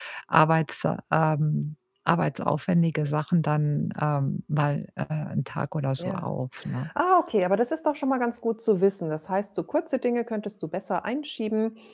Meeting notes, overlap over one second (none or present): none